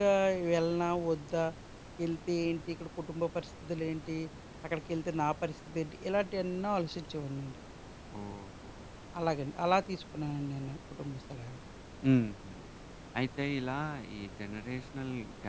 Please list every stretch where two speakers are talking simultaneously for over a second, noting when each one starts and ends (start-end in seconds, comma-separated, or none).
none